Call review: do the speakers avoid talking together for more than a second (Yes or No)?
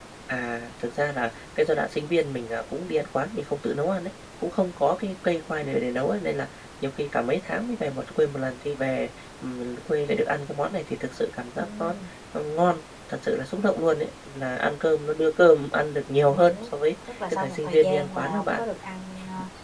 No